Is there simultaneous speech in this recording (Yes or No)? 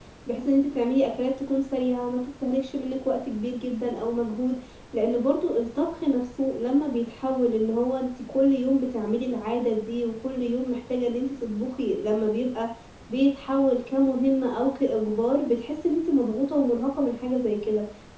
No